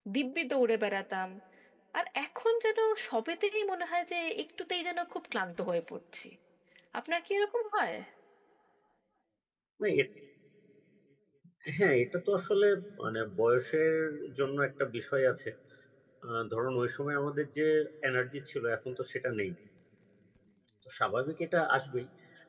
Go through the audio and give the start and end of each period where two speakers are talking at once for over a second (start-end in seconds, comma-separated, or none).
none